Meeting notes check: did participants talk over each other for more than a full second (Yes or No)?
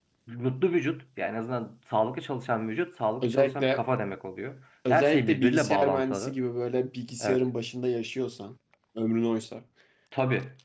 Yes